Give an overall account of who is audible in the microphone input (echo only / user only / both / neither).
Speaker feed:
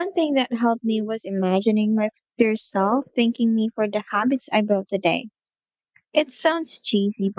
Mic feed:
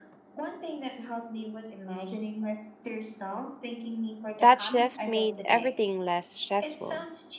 both